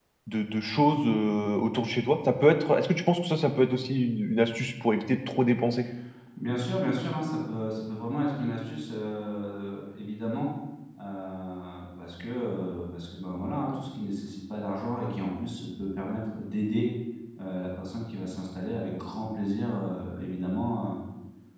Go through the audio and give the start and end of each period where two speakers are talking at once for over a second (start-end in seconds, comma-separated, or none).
none